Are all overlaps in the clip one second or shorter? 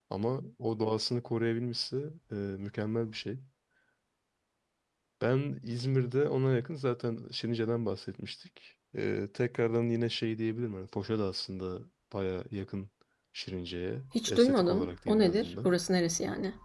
No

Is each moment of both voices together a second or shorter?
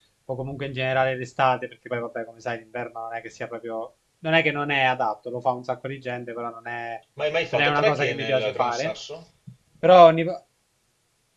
No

